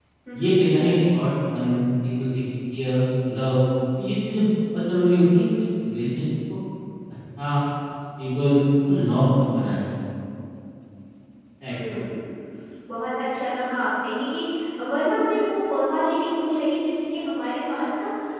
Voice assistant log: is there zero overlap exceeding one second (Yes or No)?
Yes